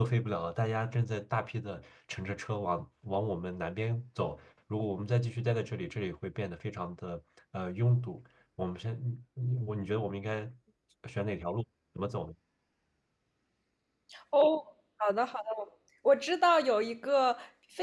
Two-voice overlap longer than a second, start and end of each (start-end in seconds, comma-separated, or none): none